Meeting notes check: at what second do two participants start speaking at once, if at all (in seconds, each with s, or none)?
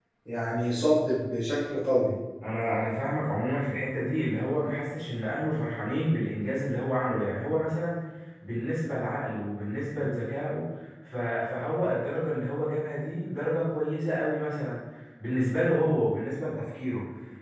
none